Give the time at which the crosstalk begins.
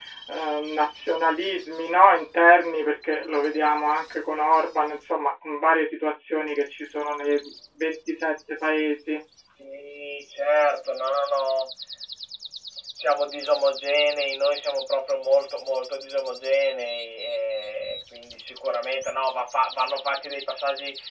none

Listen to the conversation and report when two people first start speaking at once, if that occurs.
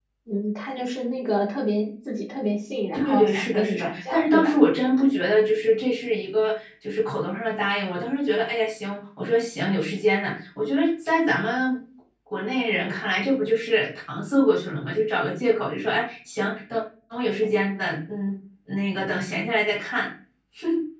3 s

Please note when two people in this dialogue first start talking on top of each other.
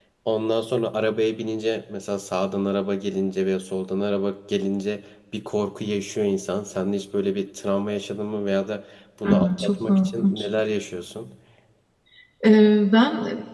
9 s

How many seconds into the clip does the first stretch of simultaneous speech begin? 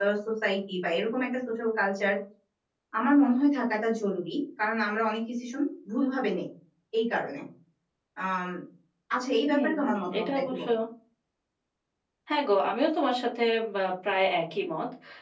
9 s

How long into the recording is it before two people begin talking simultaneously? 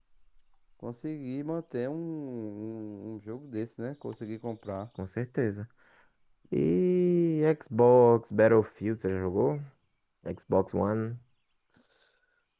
none

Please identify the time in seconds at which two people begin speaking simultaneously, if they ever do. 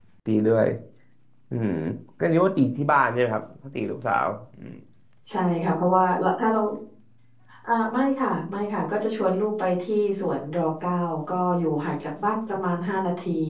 none

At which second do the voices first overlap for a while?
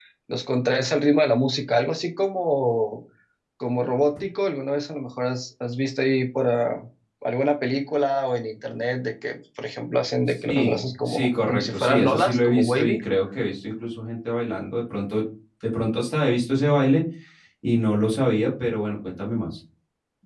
10 s

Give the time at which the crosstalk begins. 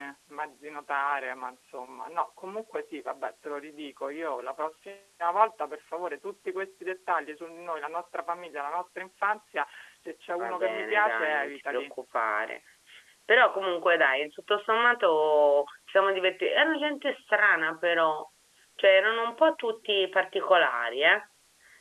10 s

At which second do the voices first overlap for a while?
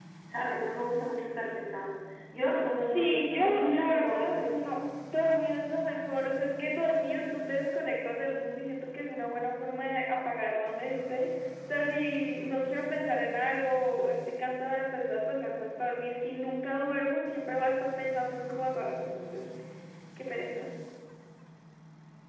3 s

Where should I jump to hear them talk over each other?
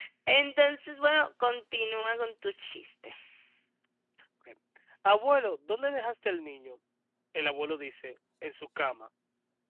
none

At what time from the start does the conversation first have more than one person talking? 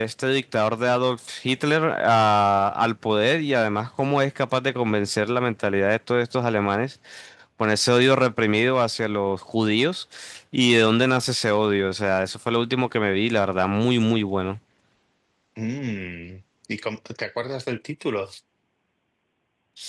none

